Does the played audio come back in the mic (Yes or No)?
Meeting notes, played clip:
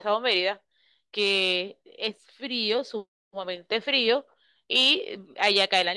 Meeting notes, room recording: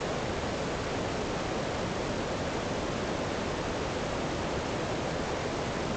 No